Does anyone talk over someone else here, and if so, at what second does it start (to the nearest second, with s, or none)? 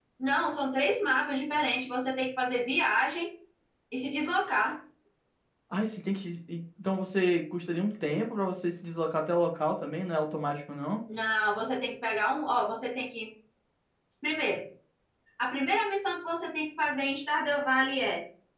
none